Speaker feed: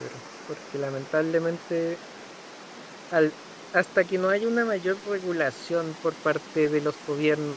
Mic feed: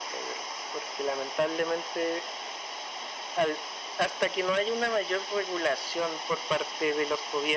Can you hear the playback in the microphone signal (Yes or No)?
Yes